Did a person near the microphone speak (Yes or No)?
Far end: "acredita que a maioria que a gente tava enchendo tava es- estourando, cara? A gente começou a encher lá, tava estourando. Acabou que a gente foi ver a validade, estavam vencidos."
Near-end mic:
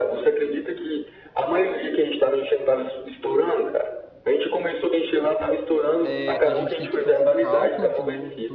Yes